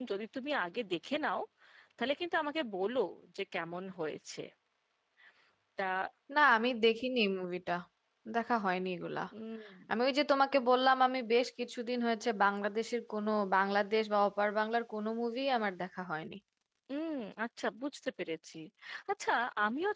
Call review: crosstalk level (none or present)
none